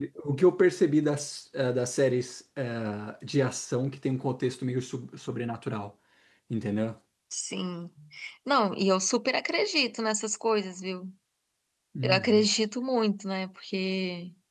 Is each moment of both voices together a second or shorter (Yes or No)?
Yes